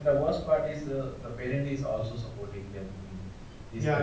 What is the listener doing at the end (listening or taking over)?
taking over